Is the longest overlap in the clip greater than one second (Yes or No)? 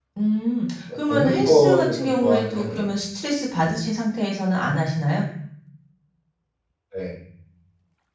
Yes